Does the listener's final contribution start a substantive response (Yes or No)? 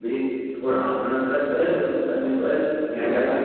Yes